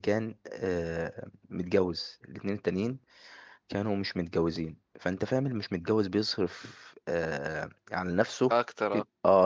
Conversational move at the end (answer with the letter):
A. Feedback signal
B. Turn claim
A